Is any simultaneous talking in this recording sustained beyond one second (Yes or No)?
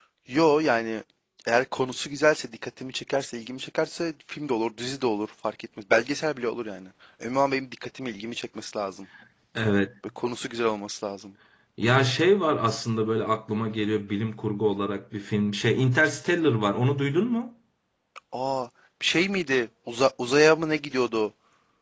No